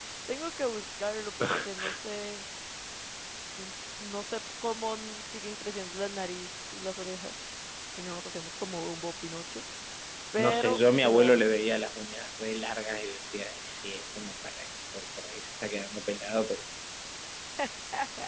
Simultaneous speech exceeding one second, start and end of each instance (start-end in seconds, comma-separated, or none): 10.4-11.7